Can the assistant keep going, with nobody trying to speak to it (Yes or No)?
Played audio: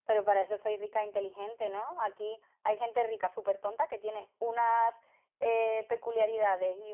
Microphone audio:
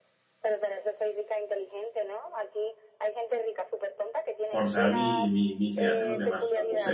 No